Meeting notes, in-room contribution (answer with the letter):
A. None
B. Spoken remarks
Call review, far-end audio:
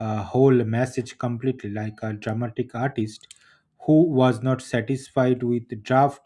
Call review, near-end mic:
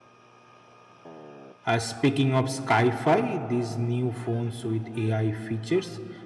B